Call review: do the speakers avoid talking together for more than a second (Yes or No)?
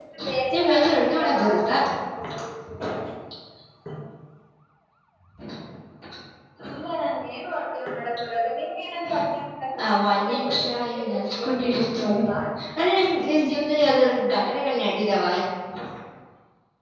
No